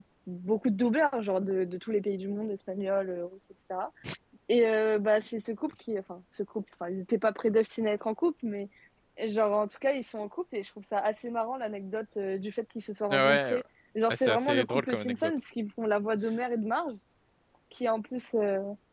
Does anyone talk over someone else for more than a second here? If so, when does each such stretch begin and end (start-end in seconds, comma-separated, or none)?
14.1-15.3